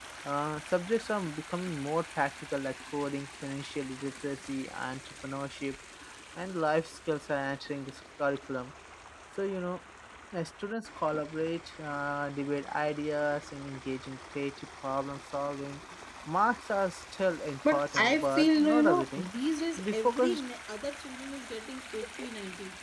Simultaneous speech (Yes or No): Yes